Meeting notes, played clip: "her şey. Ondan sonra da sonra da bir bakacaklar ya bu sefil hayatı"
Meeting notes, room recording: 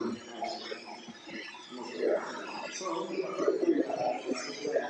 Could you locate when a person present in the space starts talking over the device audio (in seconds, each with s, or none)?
none